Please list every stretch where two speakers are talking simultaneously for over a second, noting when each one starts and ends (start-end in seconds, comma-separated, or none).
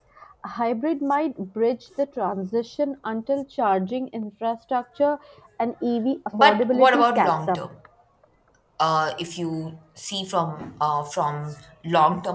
6.4-7.6